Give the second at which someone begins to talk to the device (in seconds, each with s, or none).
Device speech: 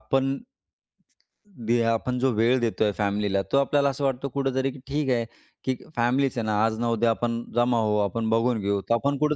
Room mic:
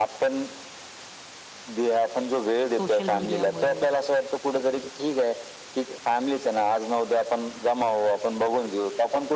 2.8 s